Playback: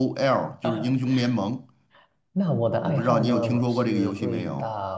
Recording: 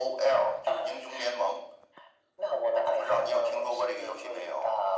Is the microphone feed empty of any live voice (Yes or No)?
Yes